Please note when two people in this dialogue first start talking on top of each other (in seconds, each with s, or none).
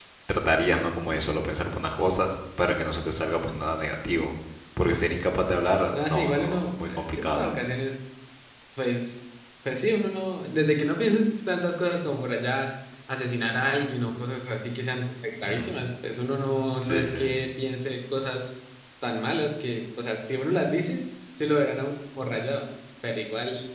5.9 s